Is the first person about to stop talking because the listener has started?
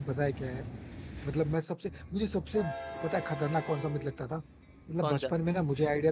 No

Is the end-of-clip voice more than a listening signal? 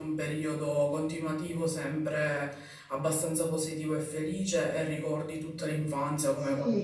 Yes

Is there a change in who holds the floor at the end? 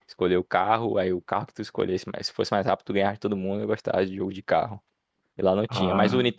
No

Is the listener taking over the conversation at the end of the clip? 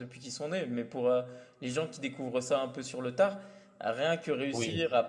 No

